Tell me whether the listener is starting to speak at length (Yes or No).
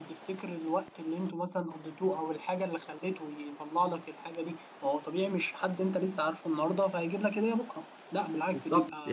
Yes